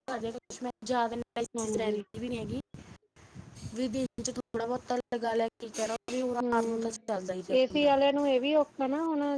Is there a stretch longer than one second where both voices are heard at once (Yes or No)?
No